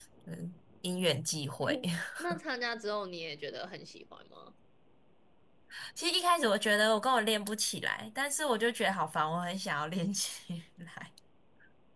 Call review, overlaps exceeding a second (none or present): none